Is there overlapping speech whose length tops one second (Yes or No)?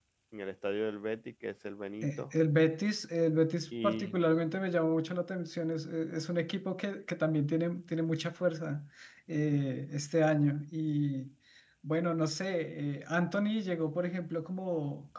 No